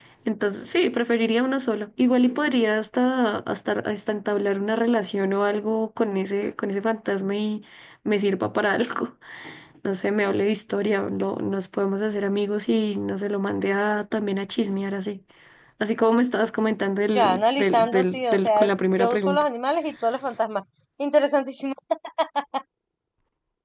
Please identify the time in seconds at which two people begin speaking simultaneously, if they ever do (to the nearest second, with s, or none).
17 s